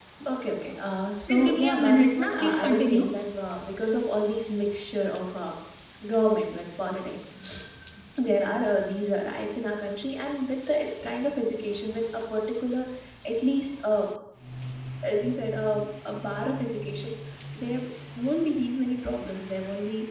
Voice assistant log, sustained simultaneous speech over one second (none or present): present